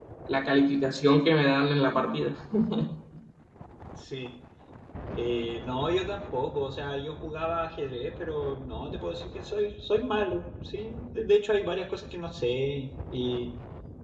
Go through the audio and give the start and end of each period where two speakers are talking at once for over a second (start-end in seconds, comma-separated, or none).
none